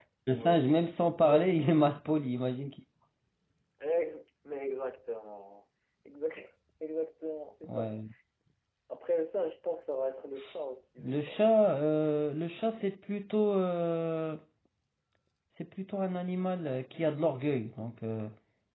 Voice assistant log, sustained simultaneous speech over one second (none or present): none